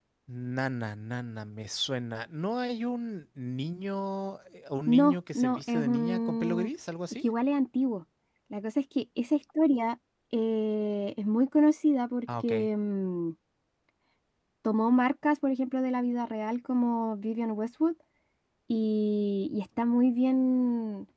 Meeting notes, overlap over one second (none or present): present